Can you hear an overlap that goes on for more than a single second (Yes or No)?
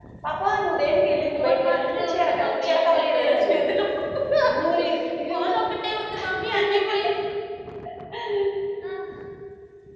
Yes